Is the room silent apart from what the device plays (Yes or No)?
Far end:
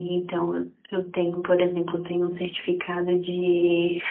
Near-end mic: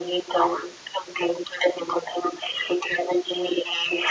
Yes